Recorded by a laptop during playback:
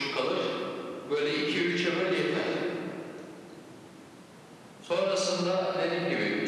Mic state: echo only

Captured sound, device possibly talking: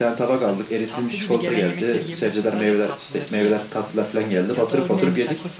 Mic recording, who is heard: both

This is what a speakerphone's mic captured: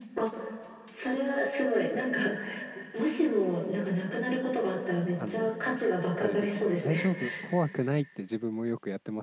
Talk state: both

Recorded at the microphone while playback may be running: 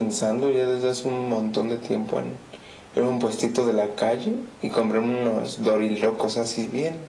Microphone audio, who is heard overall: echo only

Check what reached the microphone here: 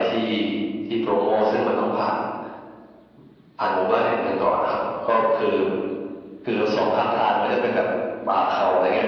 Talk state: echo only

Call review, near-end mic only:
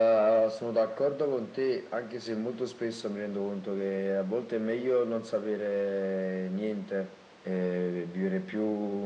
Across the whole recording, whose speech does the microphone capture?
echo only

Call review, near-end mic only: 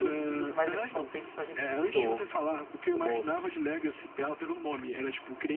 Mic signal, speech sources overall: both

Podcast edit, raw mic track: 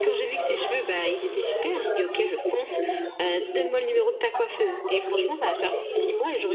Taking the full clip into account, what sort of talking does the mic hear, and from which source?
both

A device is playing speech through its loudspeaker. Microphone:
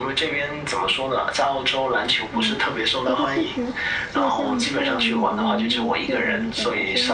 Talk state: both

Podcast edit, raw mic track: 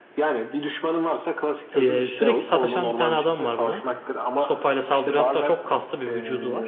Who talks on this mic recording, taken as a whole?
both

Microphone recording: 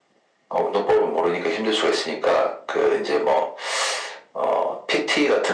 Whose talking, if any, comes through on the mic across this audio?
echo only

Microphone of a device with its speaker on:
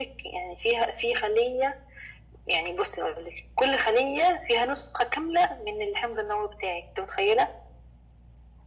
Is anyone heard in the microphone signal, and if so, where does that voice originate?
echo only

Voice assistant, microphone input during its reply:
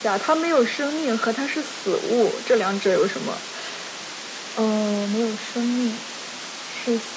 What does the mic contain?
echo only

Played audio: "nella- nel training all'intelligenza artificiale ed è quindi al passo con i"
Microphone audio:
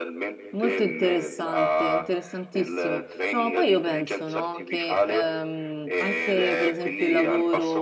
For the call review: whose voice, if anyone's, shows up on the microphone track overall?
both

